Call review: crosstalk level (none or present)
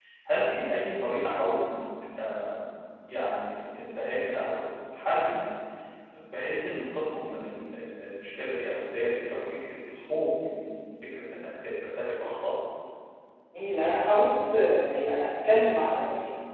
none